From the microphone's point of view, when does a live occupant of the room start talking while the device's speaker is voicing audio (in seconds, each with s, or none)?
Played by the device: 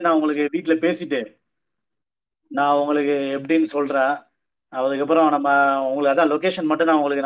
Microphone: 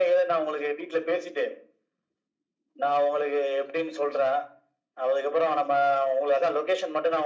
none